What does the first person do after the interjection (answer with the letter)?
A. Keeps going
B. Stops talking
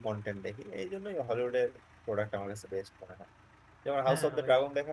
A